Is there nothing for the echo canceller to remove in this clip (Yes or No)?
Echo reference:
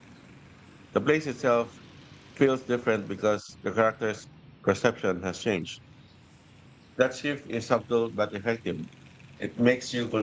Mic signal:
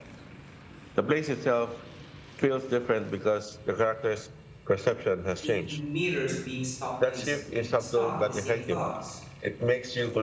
No